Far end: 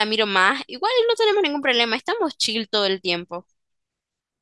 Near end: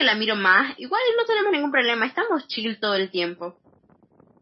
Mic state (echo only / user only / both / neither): echo only